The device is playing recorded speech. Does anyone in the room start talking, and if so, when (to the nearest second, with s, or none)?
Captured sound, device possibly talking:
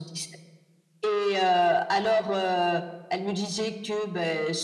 none